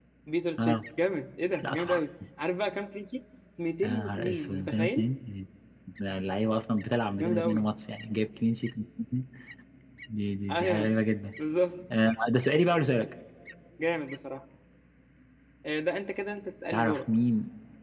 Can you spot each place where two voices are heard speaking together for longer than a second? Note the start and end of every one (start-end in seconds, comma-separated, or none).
3.8-5.1